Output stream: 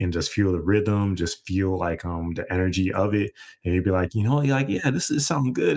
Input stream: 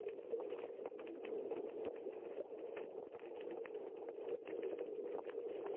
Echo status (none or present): none